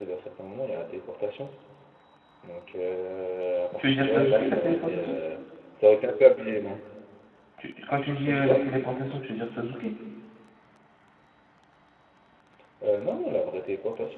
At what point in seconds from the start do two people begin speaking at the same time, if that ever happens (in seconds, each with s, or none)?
3.8 s